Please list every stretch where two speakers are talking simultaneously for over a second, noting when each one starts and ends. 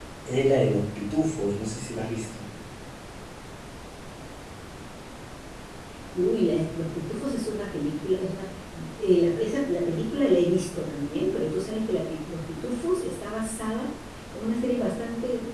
none

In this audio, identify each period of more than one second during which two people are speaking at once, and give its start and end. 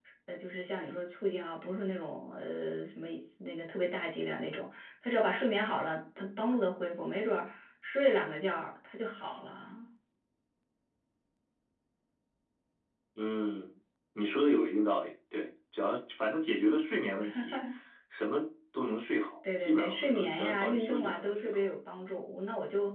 19.6-21.6

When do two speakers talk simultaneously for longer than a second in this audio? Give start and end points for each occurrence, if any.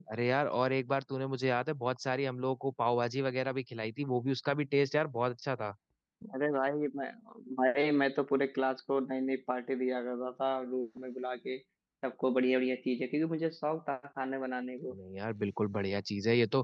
none

